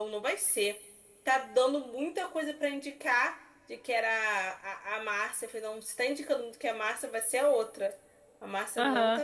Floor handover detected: No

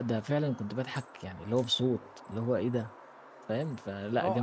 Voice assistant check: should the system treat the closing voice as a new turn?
Yes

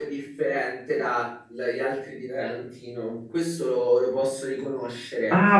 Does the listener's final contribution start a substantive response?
Yes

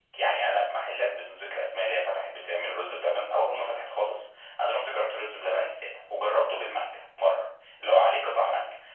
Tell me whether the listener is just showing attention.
Yes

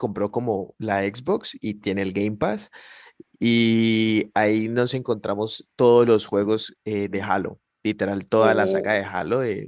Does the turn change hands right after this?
No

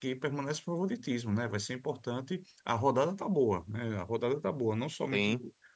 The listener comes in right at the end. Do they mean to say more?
No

